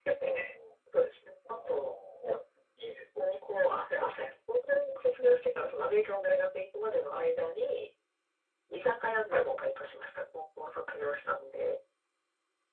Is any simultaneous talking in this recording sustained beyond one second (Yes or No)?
No